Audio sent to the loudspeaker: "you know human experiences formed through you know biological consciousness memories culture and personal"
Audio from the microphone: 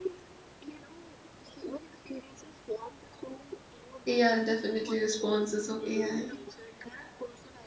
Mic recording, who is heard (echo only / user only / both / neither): both